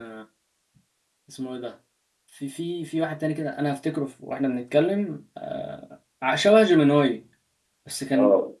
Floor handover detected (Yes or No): No